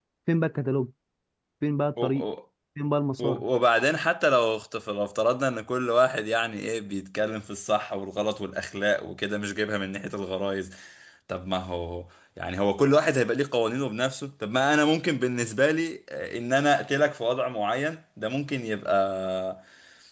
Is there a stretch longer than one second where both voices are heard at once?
No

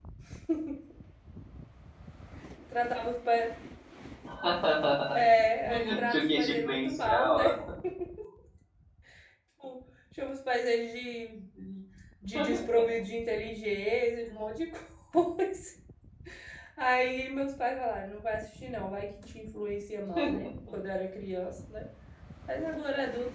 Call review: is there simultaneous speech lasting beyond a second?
Yes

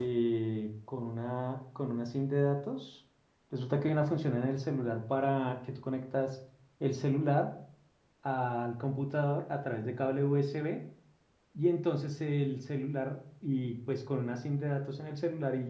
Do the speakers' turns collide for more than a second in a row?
No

